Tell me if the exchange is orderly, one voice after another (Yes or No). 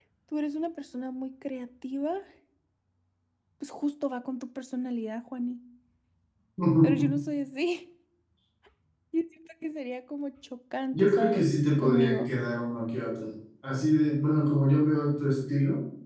No